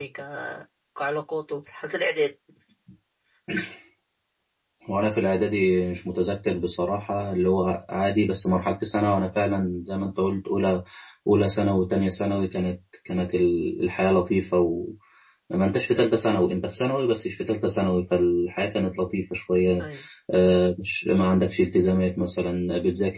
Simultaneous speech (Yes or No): No